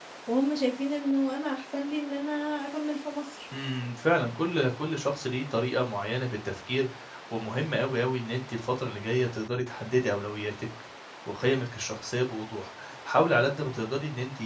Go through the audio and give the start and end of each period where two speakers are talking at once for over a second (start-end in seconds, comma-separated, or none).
none